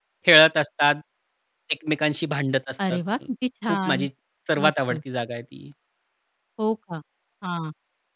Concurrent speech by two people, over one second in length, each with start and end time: none

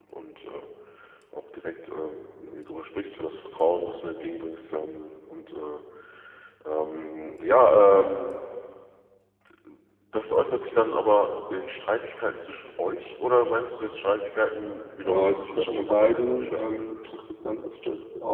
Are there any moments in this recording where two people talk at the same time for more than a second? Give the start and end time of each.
15.0-16.8

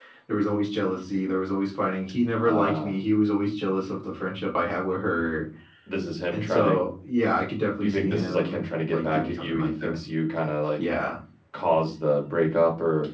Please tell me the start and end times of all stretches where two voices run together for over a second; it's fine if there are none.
7.8-9.9

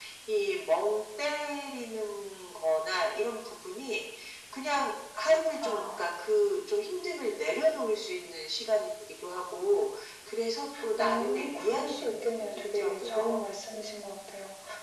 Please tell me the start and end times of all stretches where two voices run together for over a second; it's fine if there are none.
11.0-13.4

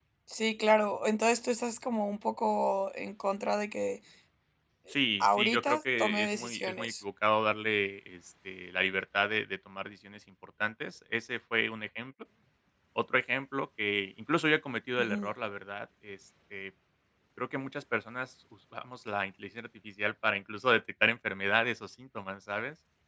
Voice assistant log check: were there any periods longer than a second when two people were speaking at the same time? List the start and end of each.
5.2-6.9

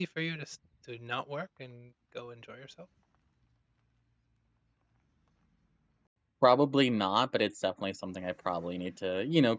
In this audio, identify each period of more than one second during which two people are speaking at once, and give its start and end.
none

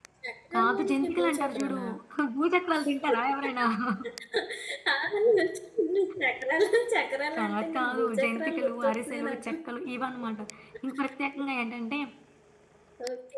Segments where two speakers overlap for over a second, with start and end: 0.5-1.8, 7.4-9.5

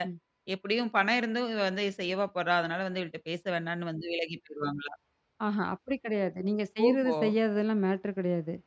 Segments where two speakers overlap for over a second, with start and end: none

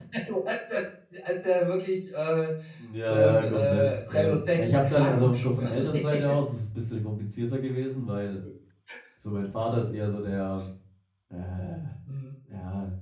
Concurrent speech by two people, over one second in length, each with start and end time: 3.1-6.4

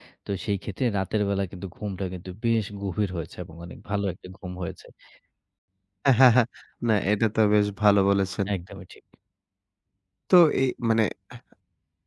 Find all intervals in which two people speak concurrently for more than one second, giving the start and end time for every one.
none

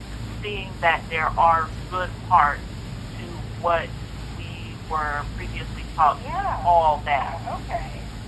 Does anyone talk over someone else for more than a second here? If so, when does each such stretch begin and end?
6.1-7.4

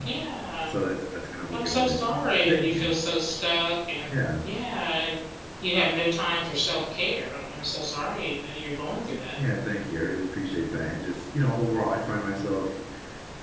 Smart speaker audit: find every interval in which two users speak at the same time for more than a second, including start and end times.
1.5-2.9

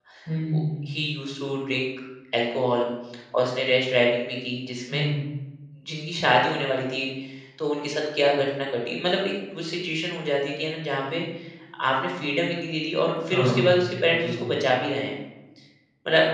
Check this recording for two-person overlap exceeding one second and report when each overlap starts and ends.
13.3-14.6

